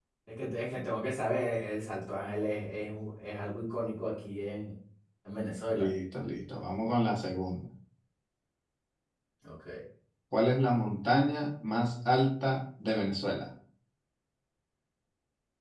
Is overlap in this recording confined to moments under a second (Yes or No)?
Yes